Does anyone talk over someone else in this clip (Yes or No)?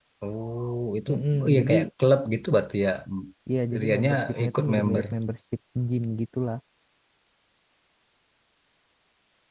Yes